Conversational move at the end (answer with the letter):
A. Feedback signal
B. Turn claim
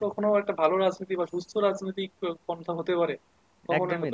B